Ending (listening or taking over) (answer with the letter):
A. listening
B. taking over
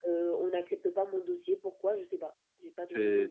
B